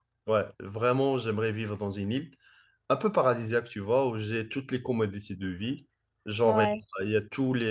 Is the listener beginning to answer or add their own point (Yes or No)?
No